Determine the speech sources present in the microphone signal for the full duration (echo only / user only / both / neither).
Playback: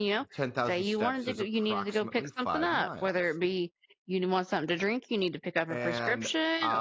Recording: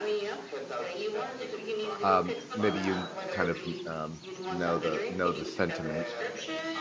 both